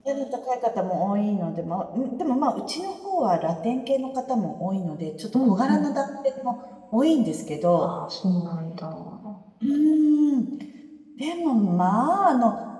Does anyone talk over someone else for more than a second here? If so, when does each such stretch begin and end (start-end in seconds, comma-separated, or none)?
none